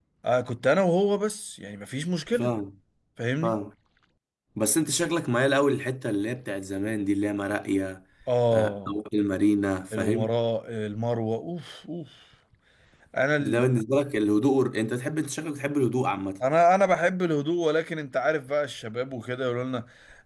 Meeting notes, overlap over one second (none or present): none